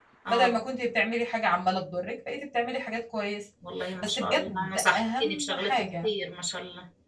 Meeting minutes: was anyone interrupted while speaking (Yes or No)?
Yes